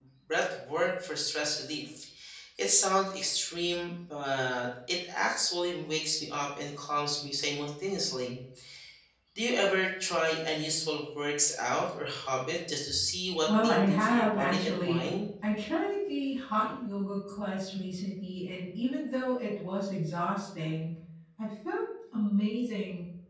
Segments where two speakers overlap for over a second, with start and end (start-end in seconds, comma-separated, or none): 13.5-15.1